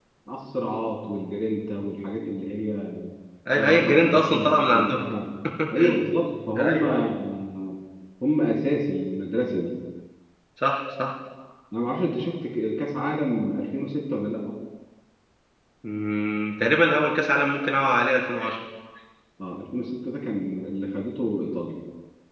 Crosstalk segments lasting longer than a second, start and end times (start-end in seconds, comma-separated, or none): 3.5-5.1